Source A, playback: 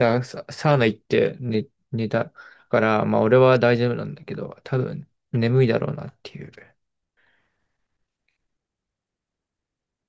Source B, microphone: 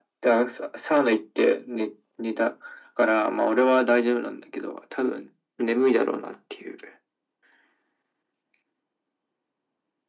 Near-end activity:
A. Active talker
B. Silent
B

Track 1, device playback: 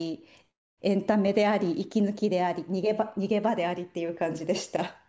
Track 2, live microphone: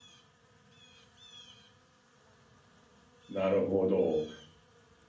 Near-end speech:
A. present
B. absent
A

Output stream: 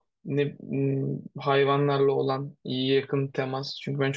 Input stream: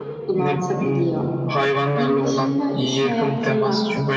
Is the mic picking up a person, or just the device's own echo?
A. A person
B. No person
A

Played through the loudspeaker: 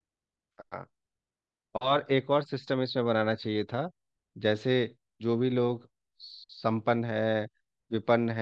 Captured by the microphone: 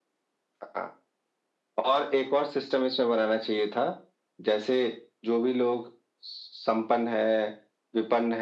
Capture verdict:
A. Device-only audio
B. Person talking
A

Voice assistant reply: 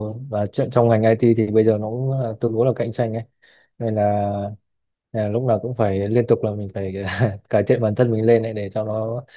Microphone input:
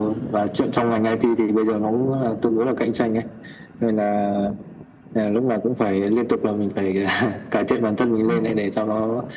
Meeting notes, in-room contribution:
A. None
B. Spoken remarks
B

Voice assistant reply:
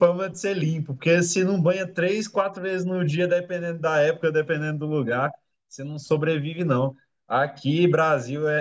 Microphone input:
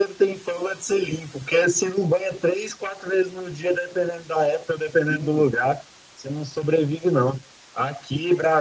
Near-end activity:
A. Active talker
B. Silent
A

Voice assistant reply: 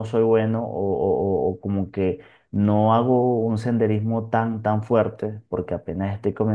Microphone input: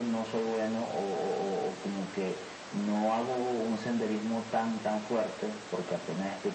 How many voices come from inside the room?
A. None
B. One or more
A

